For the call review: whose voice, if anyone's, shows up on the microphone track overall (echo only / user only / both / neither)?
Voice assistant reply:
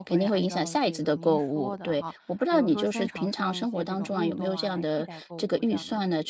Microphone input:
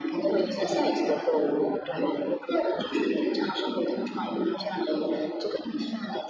echo only